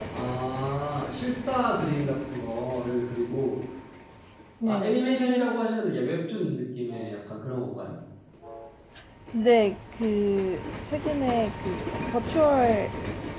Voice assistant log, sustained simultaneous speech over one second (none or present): none